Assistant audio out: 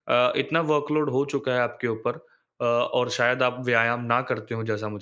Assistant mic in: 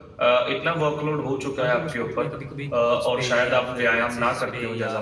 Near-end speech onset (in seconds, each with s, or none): 1.6 s